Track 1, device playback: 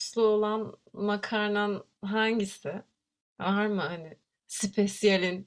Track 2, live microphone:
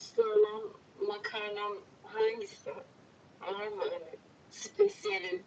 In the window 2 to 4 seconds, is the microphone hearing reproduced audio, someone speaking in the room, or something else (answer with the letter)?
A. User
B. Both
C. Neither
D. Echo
D